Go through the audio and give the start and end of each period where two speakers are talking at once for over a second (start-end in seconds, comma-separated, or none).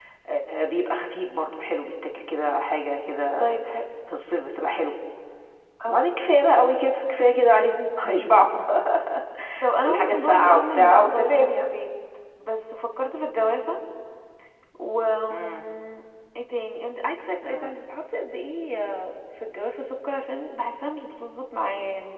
9.8-11.7